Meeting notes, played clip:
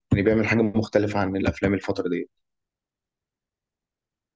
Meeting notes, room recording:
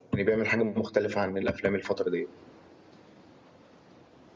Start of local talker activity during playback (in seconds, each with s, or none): none